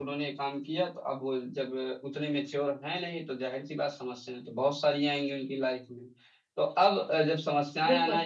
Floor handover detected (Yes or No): No